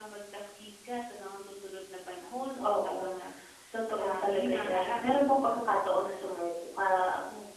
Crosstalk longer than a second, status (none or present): present